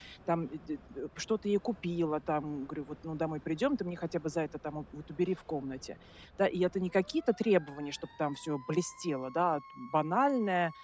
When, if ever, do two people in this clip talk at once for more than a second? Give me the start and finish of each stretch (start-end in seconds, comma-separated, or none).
none